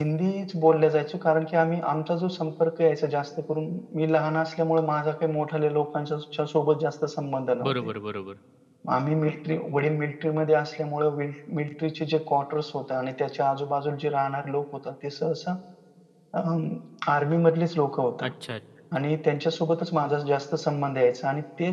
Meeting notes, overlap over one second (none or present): none